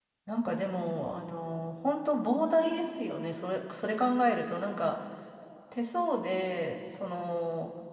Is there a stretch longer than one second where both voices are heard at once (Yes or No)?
No